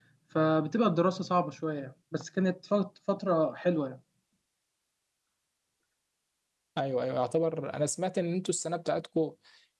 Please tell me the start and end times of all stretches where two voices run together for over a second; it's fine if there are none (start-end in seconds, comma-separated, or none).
none